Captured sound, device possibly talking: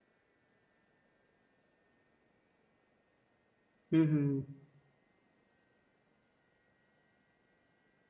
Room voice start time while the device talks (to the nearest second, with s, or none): 4 s